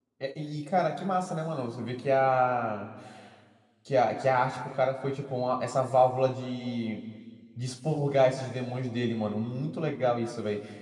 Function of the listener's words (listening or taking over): listening